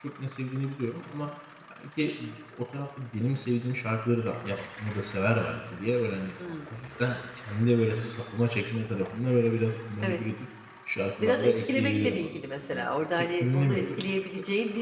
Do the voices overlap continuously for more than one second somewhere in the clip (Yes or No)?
Yes